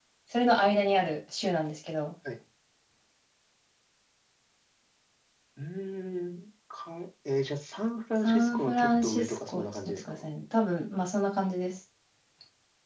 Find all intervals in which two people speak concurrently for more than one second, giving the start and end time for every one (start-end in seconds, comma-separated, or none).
8.2-10.3